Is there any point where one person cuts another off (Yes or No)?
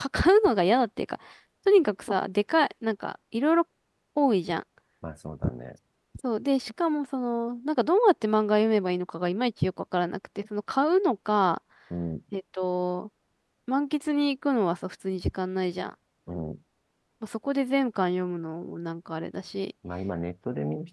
No